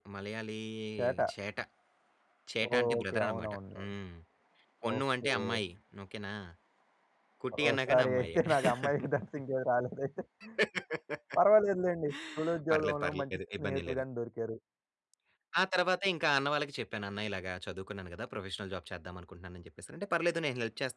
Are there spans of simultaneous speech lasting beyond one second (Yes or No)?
Yes